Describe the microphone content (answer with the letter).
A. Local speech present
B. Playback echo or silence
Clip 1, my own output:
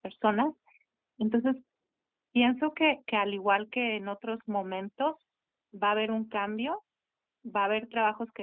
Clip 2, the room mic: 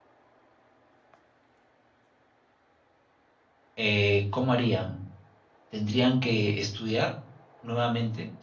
A